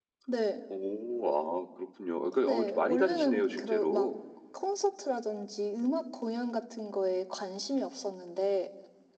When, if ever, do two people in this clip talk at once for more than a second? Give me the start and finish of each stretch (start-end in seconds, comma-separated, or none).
2.4-4.1